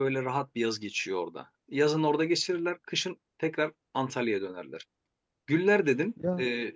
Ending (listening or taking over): listening